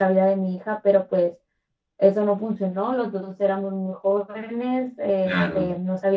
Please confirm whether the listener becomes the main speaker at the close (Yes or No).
No